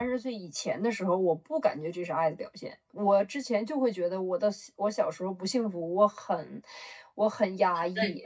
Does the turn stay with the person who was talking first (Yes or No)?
Yes